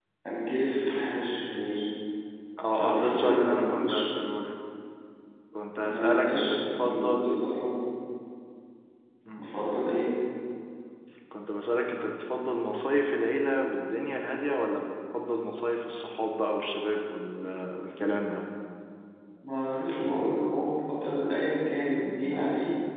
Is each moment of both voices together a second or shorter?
No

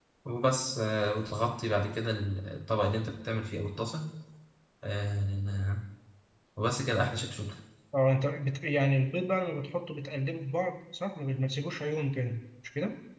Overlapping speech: No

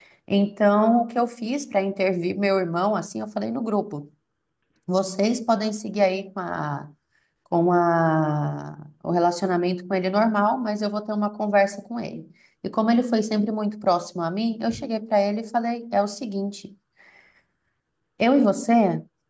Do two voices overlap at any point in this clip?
No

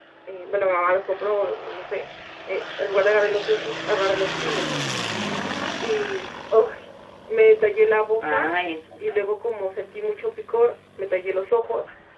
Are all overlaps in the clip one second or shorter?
Yes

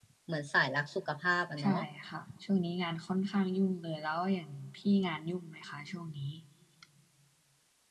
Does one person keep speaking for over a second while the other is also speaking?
No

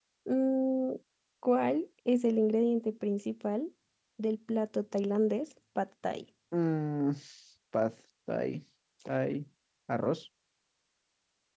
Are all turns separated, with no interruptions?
Yes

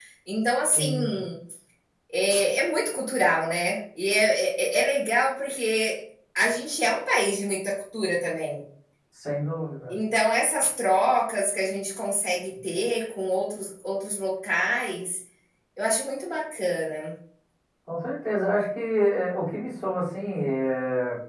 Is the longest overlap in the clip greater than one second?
No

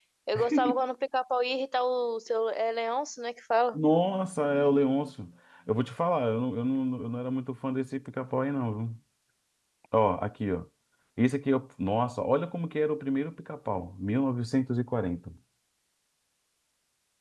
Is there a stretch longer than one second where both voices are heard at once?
No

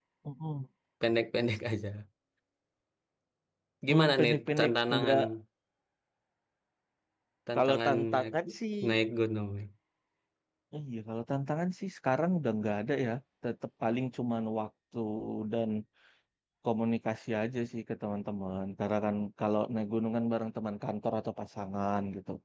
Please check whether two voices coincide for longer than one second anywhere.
Yes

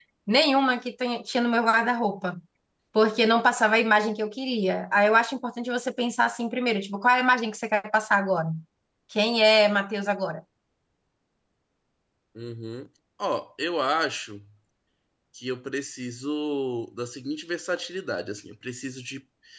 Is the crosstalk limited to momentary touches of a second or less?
Yes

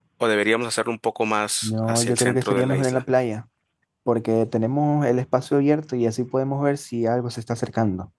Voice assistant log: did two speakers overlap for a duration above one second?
Yes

